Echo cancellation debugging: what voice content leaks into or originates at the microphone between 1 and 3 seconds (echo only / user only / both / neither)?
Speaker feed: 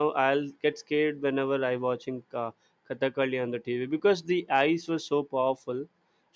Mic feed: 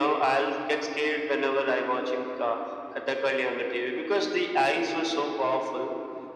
echo only